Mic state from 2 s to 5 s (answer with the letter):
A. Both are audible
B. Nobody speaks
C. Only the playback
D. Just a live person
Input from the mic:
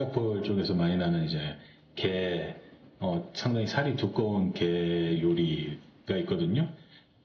C